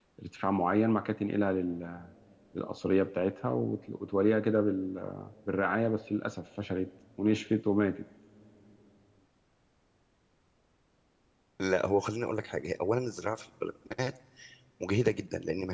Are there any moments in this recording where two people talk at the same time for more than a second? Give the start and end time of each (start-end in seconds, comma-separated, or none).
none